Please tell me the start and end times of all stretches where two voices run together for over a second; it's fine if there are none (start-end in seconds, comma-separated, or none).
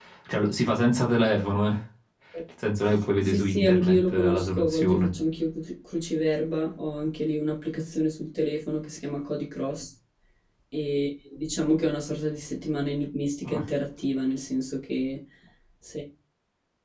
3.2-5.1